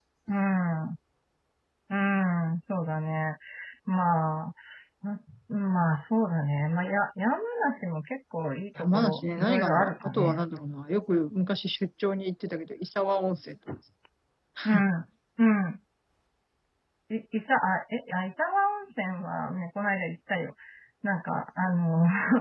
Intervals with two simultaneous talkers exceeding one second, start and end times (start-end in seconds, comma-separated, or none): 8.8-10.4